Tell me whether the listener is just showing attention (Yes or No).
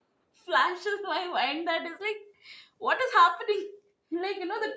Yes